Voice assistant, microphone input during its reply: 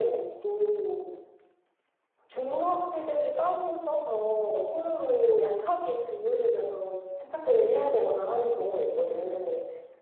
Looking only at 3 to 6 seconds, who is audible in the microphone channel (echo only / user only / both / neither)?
echo only